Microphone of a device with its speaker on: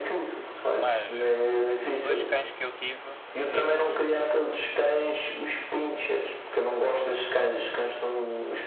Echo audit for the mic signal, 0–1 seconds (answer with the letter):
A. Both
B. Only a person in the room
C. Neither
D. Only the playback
A